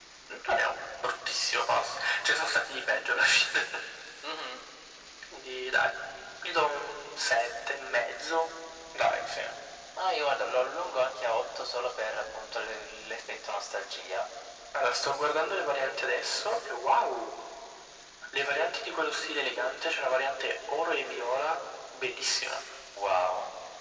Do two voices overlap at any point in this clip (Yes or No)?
No